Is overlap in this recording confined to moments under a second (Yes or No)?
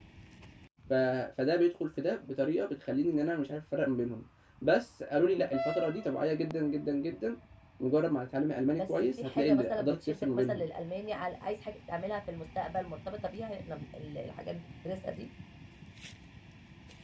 No